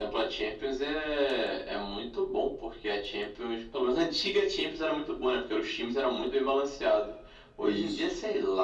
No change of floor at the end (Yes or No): Yes